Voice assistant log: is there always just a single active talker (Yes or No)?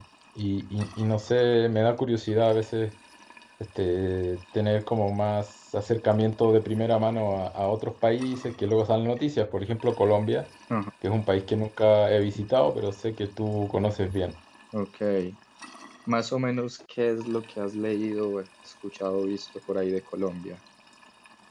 Yes